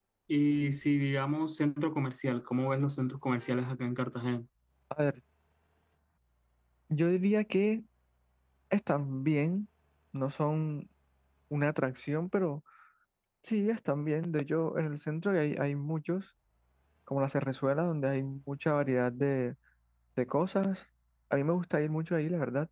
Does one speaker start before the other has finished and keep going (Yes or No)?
No